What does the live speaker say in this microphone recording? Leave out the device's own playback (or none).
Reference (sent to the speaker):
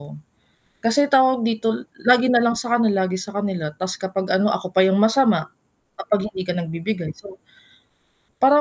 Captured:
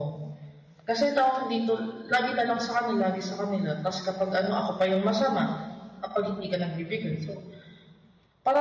none